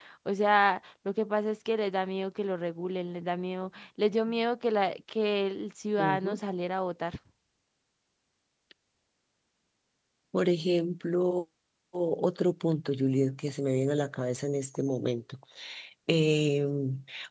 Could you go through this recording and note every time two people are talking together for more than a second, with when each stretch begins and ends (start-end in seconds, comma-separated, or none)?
none